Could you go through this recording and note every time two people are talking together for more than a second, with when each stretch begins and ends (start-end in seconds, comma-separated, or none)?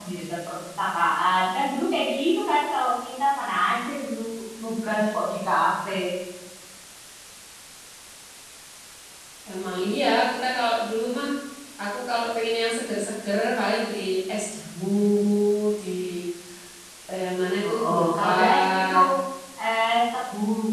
17.6-18.9